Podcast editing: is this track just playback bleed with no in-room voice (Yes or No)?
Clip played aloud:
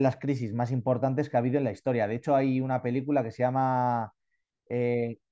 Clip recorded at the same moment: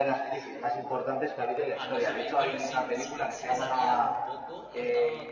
No